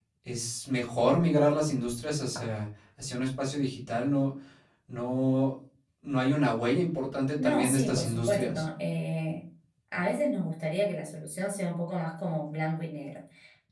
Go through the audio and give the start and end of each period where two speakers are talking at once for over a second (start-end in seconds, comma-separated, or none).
7.4-8.6